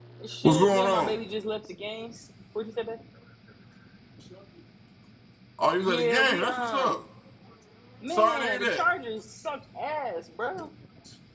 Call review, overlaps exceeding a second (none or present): present